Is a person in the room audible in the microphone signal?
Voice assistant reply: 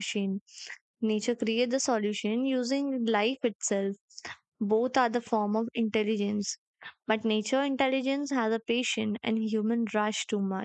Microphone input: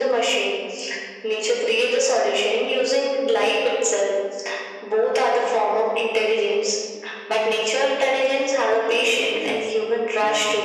Yes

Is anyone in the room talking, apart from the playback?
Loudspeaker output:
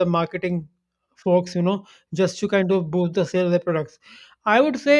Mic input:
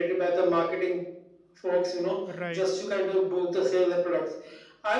Yes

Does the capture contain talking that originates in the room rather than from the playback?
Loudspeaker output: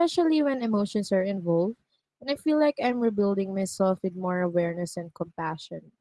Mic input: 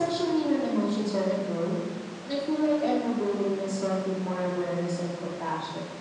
No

